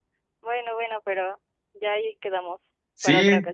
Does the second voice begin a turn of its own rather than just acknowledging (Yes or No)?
Yes